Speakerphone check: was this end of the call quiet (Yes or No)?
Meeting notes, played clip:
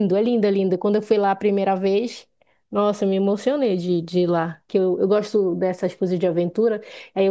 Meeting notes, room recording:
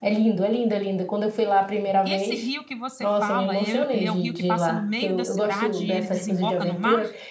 No